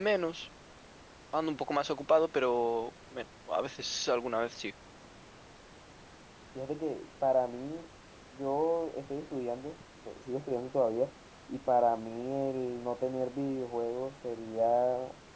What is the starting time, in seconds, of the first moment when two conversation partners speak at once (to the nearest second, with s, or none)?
none